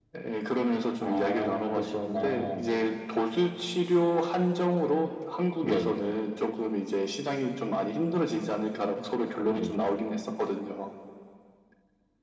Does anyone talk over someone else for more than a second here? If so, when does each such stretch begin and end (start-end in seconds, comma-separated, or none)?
1.0-2.6